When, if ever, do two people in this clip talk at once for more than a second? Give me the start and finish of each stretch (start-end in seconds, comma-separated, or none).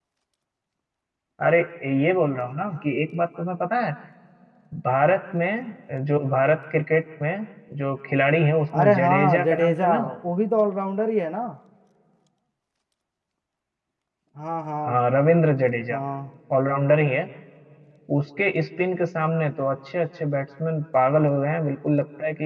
8.8-10.2